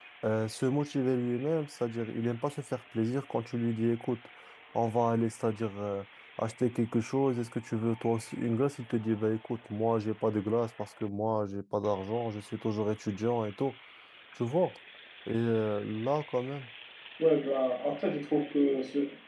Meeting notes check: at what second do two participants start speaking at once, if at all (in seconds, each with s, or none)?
none